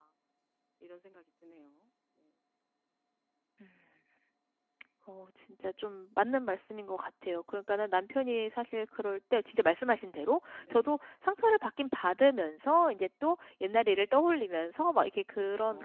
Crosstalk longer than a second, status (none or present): none